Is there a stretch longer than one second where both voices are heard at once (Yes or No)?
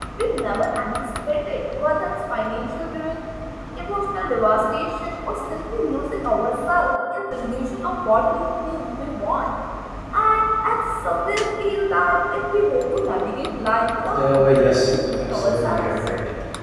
Yes